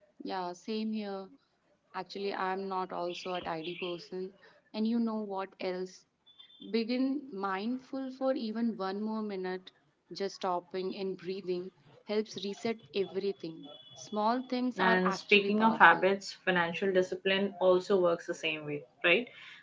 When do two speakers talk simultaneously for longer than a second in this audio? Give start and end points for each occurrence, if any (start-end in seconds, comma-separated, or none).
14.8-16.0